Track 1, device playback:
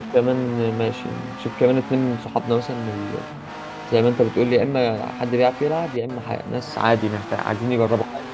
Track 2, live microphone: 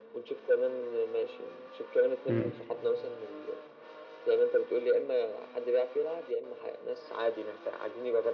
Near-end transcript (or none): امم